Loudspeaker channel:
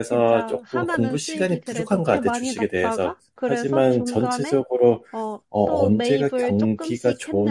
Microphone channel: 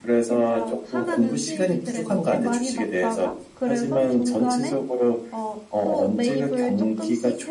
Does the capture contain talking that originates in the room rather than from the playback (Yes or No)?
No